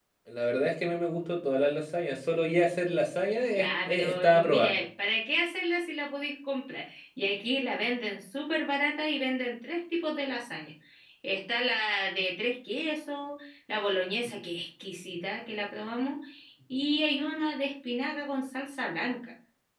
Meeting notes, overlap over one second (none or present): present